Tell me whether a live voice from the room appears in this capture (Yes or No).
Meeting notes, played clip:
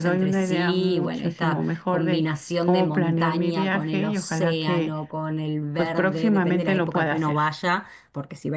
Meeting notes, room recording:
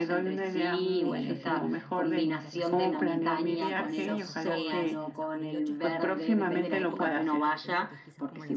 Yes